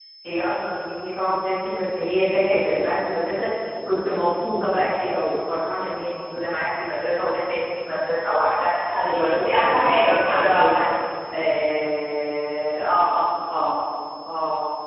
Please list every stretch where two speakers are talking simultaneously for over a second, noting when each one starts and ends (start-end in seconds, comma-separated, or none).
9.1-10.8